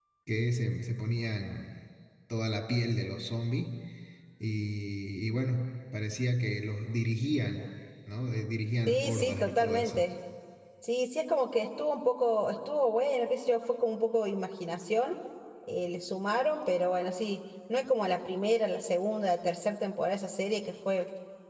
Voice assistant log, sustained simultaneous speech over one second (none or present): present